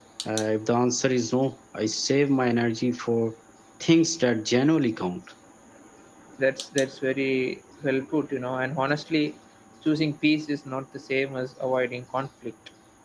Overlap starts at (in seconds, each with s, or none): none